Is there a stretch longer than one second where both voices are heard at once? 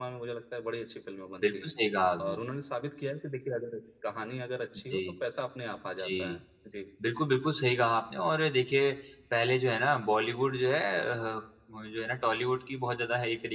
No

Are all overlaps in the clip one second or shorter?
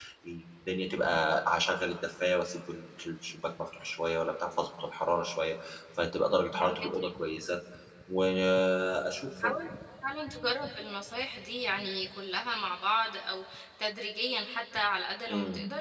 Yes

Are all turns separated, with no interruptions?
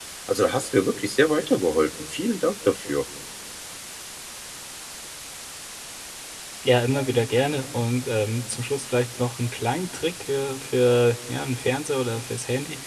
Yes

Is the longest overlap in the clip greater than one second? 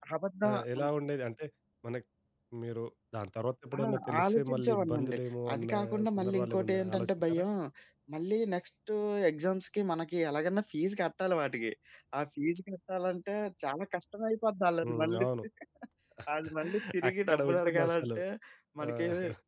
Yes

